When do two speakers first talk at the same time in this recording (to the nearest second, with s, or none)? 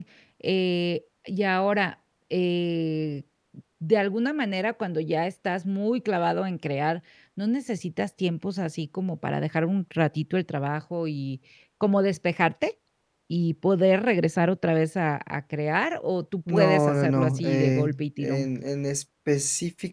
16 s